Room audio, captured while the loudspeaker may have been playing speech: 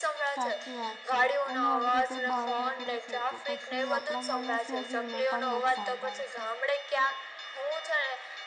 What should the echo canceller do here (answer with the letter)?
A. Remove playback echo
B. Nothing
A